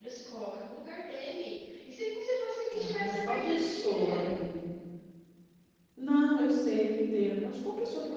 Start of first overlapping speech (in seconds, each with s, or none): 2.7 s